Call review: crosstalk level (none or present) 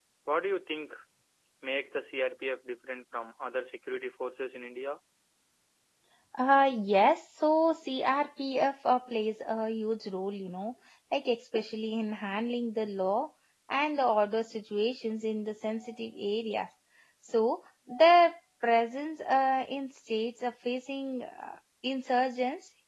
none